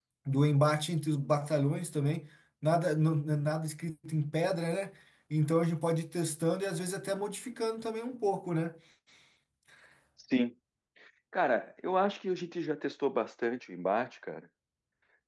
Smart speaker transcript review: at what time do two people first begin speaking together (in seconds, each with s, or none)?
none